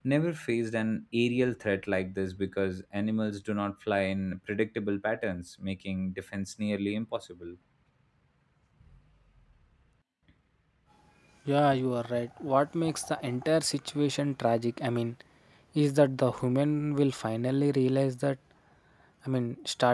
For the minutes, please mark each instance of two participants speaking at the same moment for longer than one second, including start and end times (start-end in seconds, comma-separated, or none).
none